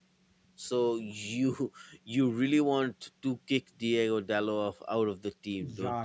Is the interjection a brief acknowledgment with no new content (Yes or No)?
No